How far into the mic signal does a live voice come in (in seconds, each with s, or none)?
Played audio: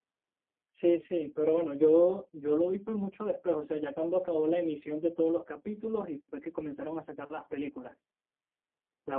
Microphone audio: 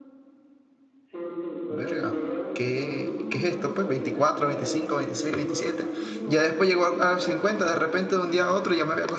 1.7 s